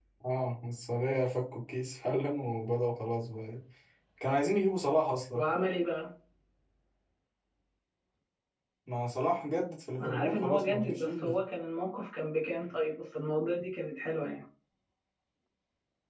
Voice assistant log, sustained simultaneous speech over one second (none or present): present